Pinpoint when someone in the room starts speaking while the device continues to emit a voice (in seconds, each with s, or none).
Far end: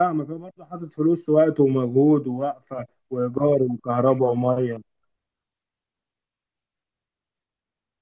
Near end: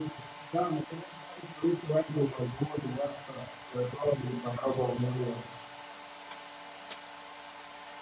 none